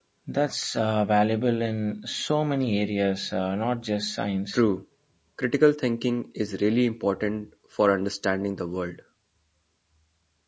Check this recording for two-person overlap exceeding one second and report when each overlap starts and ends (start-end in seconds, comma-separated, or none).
none